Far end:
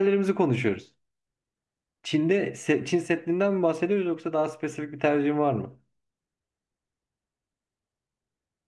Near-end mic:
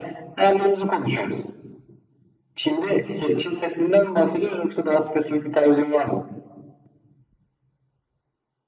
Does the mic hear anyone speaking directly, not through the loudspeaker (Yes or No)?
No